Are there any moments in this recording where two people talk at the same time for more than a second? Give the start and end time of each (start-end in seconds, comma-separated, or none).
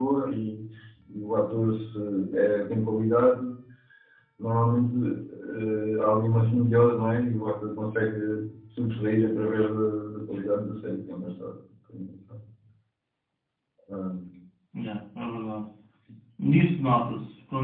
none